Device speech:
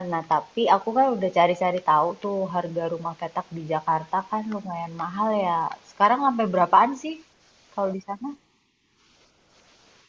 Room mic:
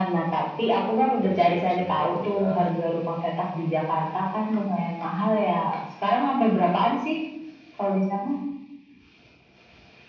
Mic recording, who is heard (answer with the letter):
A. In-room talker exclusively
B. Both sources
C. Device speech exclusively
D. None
B